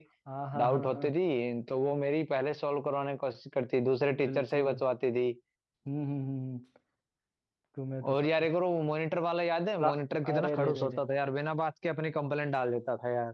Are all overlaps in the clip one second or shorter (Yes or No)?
No